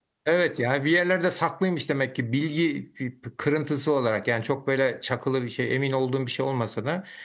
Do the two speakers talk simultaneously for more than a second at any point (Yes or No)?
No